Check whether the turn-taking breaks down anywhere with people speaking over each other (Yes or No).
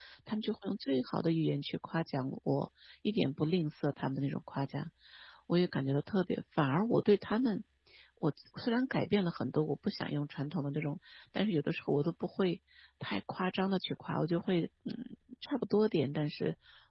No